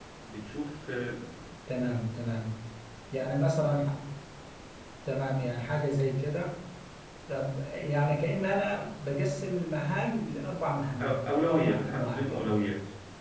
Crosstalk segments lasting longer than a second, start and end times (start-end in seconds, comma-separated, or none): 11.0-12.5